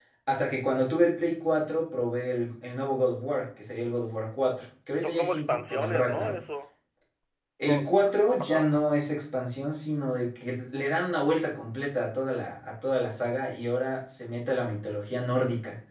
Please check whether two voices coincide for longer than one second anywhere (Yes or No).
Yes